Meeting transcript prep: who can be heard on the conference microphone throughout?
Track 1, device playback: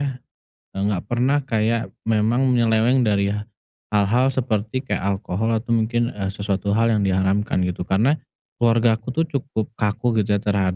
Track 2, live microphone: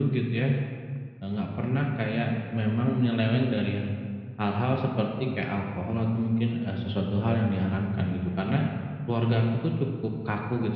echo only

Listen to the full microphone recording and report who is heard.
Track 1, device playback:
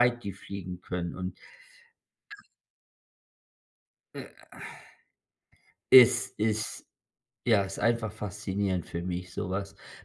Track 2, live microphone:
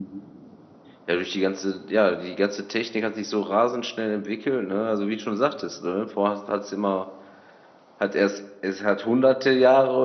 user only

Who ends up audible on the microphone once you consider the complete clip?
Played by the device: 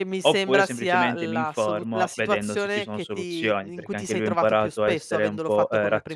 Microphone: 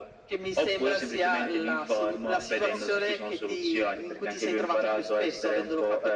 both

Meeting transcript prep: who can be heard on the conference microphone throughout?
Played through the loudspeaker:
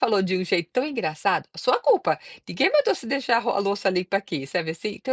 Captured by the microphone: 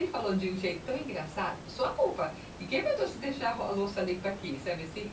echo only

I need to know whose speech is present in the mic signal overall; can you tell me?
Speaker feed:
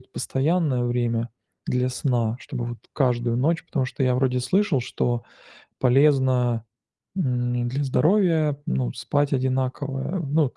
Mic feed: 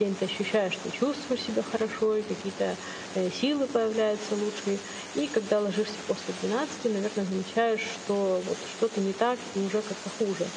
user only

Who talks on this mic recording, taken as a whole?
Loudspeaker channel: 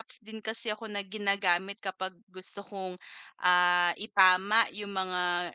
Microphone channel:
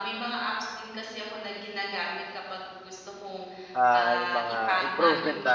both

